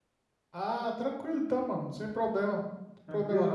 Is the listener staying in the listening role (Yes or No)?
No